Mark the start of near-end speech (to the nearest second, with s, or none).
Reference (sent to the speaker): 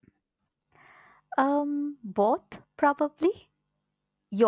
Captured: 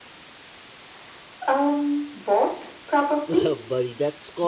3 s